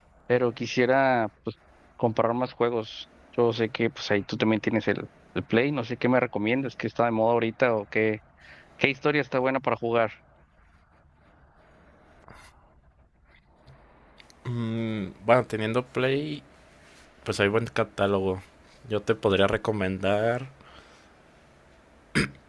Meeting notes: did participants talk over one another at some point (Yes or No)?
No